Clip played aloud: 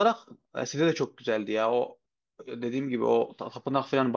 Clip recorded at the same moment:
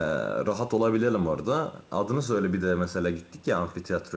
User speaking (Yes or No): Yes